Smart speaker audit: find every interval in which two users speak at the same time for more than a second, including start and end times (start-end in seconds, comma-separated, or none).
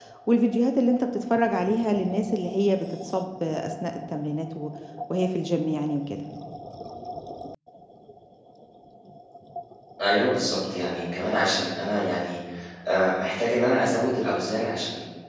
none